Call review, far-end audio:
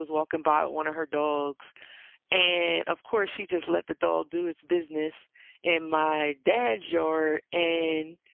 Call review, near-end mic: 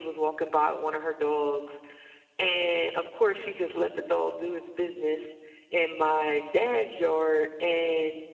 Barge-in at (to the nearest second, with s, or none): none